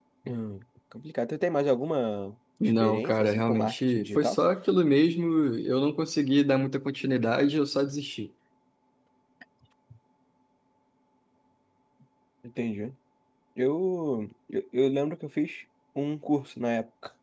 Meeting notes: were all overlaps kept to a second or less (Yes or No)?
No